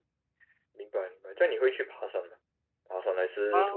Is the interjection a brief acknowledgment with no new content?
No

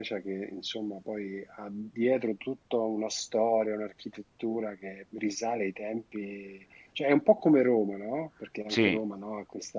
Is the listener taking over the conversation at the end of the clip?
No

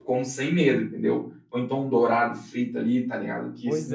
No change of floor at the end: No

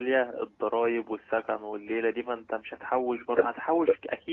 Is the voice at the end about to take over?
No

